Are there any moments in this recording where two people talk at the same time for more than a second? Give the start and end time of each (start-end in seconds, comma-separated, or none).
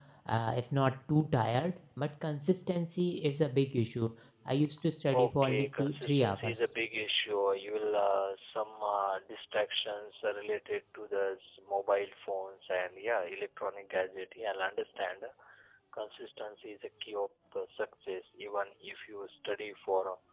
5.1-6.6